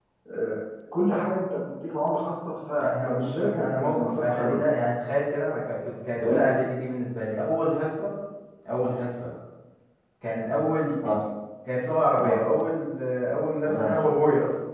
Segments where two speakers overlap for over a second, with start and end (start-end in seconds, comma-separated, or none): 2.8-4.6